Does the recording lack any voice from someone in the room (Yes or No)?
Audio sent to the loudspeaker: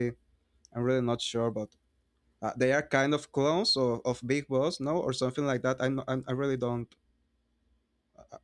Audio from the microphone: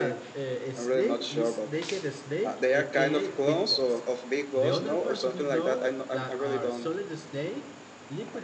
No